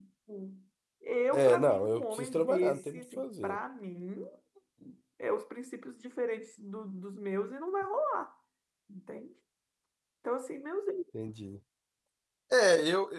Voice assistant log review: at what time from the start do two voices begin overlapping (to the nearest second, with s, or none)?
1 s